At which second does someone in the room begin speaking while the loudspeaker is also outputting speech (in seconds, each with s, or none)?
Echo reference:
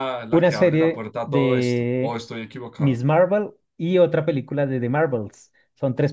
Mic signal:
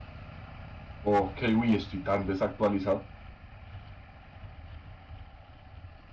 1.0 s